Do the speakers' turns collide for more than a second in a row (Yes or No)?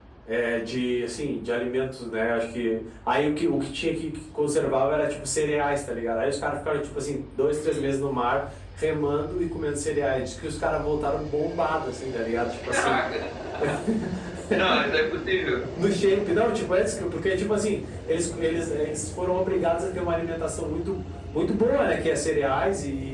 No